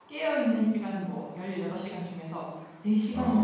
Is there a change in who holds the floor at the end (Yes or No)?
No